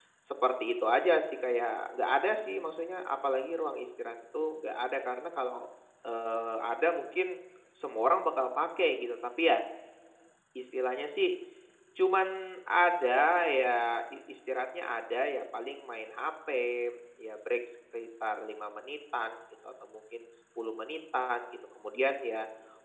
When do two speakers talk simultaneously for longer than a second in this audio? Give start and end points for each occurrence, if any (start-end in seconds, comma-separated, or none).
none